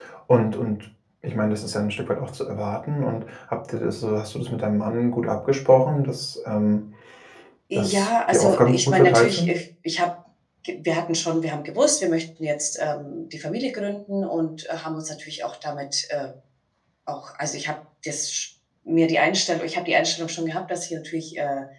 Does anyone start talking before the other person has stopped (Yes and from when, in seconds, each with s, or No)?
Yes, from 7.8 s